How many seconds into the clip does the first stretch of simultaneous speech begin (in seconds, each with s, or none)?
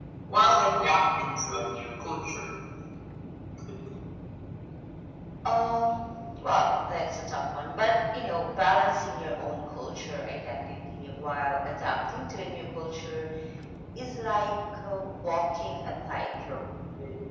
none